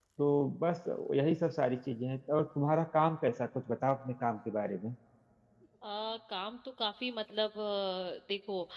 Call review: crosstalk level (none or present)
none